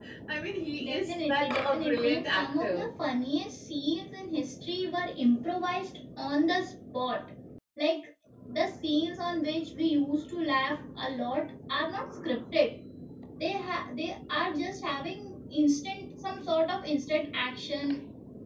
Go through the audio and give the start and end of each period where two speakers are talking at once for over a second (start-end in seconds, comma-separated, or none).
0.8-2.9